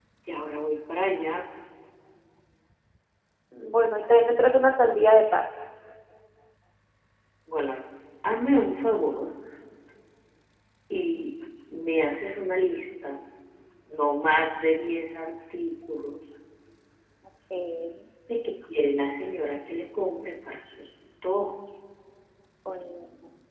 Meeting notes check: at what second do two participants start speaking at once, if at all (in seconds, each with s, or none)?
none